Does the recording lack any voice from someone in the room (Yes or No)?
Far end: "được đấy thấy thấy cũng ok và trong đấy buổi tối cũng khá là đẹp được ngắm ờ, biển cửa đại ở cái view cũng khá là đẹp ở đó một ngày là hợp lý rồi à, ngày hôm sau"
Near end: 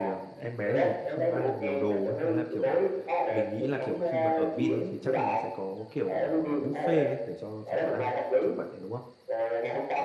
No